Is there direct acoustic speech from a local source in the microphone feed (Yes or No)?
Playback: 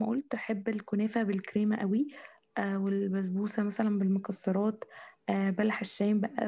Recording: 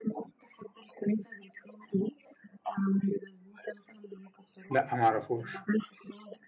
Yes